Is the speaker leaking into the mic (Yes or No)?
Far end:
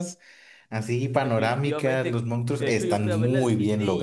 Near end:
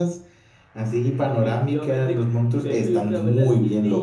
Yes